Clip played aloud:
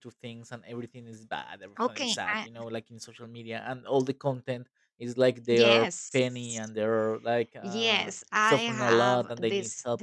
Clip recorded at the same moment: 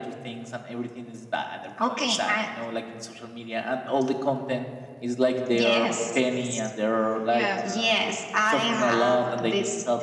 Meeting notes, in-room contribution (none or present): present